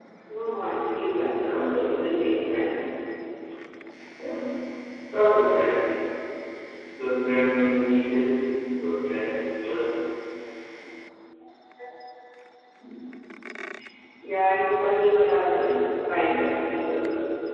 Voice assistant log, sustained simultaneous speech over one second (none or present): present